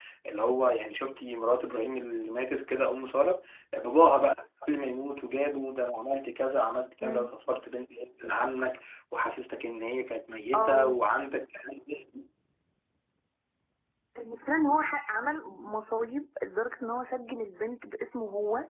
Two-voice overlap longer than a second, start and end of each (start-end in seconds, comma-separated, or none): none